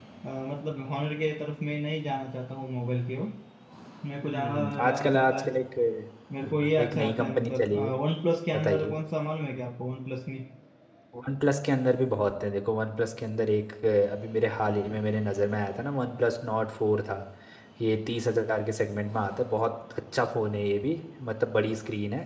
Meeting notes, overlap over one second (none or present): present